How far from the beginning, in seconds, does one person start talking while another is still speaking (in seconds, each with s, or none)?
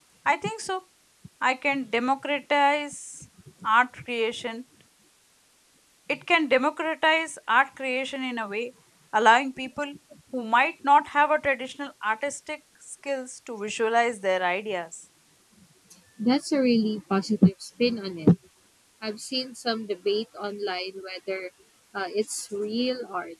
none